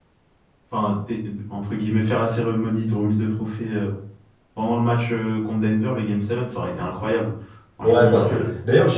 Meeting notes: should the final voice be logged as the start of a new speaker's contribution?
Yes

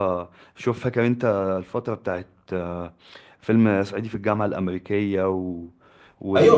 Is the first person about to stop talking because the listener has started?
Yes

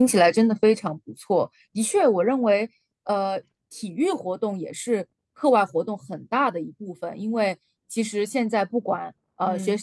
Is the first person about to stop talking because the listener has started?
No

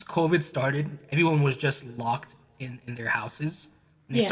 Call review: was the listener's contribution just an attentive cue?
Yes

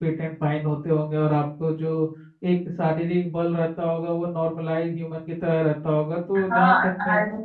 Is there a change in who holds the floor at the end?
Yes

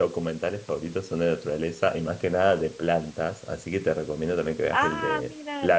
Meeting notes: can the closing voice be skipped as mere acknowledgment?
Yes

